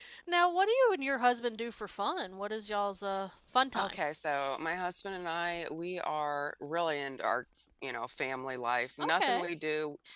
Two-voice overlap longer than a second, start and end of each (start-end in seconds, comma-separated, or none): none